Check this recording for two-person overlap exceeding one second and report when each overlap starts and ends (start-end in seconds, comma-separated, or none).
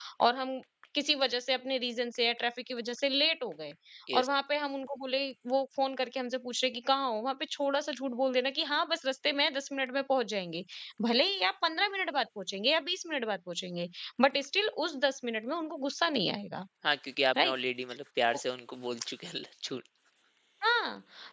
none